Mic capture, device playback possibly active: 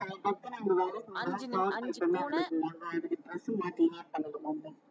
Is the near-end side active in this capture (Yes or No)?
Yes